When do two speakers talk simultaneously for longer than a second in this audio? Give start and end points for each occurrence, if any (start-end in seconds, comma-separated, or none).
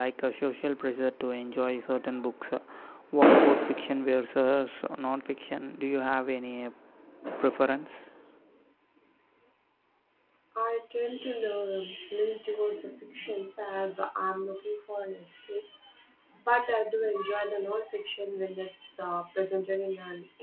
none